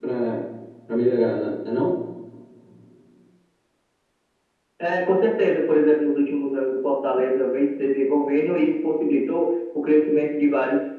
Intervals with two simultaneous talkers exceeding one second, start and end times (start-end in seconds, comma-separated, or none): none